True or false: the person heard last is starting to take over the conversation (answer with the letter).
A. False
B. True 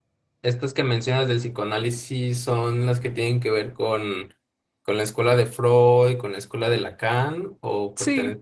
B